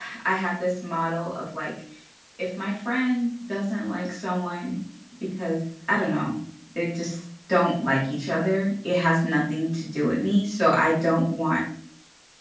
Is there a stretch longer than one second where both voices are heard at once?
No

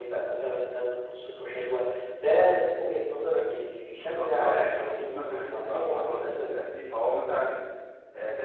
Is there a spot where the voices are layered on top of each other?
Yes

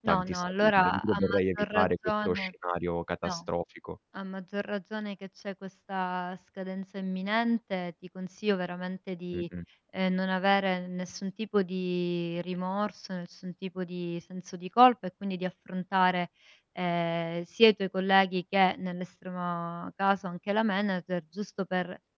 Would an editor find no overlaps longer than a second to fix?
No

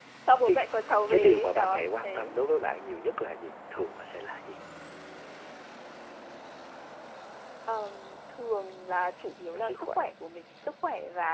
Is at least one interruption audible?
Yes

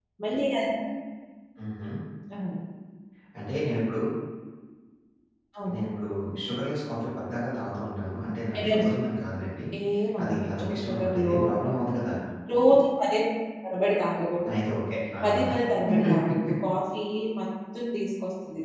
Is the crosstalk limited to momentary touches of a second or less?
No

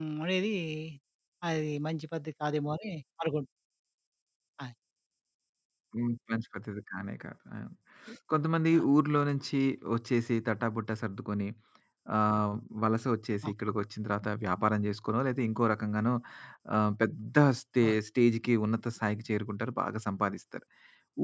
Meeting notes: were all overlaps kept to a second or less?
Yes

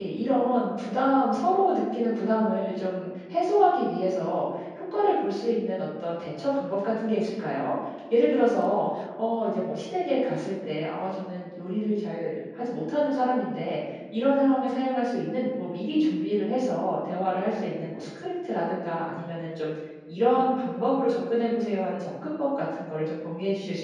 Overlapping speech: No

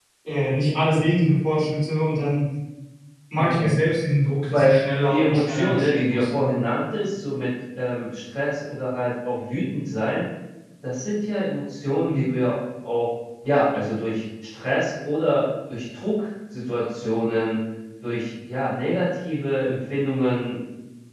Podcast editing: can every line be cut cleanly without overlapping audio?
No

